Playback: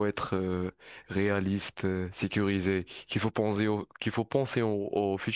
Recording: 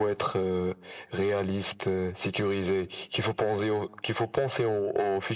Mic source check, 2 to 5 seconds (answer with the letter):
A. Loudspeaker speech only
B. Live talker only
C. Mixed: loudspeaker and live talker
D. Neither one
A